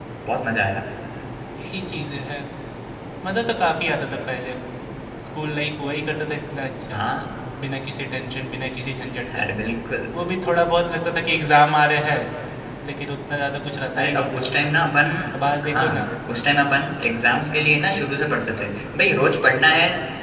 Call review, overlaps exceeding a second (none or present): none